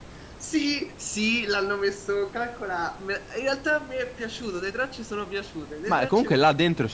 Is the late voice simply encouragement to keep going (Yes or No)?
No